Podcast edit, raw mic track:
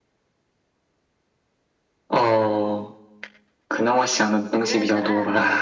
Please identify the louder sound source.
echo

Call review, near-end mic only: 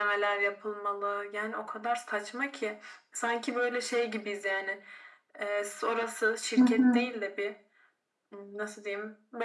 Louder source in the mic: user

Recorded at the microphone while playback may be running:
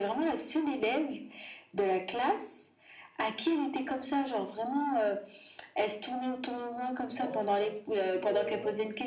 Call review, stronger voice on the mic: echo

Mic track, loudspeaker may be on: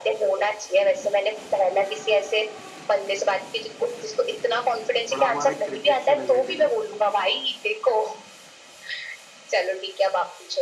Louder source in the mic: echo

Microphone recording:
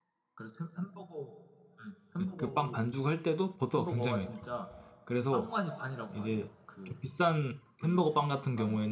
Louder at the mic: user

